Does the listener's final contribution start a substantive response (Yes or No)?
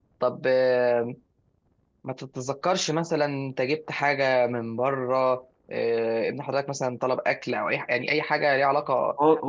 Yes